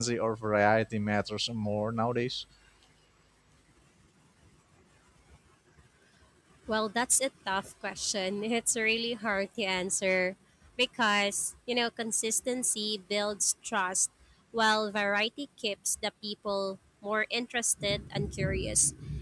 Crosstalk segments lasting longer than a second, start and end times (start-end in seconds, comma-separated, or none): none